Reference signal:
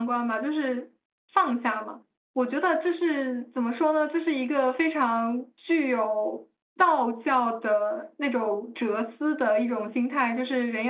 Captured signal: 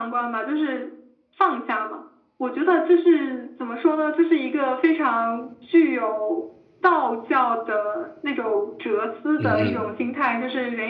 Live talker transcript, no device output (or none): 嗯哼。